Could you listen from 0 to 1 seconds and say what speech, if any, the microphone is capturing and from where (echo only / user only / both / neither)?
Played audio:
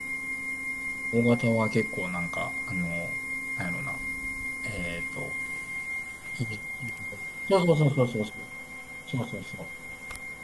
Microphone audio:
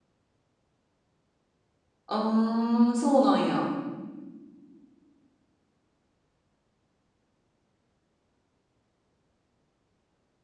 neither